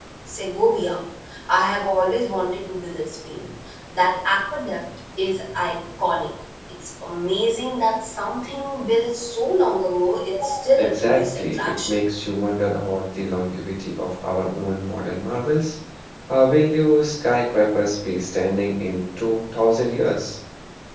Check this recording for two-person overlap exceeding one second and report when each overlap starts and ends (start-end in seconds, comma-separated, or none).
10.8-12.0